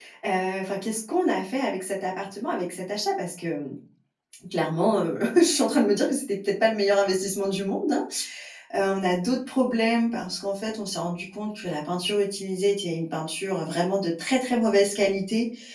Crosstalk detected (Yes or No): No